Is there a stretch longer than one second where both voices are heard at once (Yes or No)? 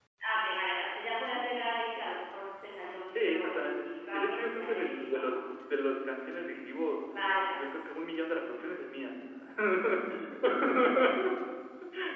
Yes